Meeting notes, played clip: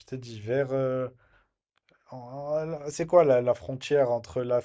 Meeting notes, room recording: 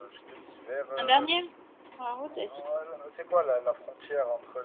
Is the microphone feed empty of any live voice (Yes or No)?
No